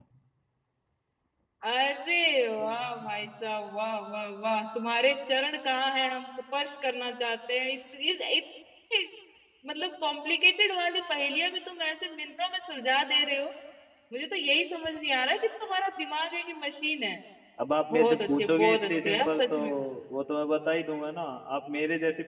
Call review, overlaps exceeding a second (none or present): present